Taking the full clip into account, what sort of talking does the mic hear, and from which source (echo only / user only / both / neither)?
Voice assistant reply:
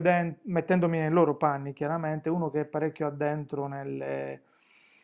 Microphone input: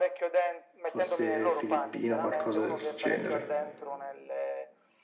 both